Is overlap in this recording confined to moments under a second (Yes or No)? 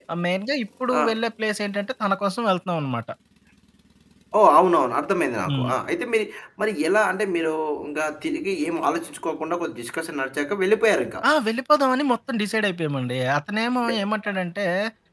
Yes